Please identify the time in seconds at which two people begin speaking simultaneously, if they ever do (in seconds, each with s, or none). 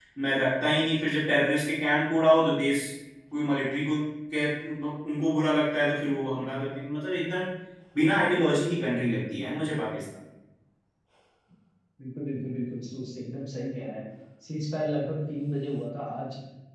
none